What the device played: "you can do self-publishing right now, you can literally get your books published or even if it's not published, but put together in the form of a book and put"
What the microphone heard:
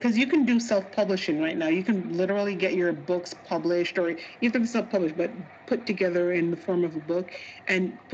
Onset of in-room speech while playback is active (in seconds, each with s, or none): none